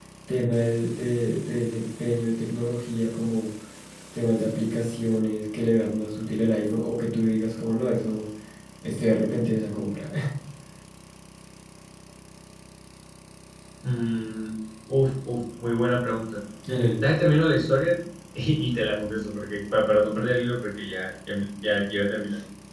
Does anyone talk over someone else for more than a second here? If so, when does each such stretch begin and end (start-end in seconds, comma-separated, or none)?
none